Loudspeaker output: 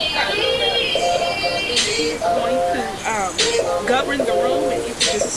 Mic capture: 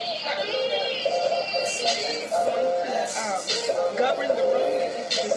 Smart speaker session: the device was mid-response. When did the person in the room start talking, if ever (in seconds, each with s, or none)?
1.6 s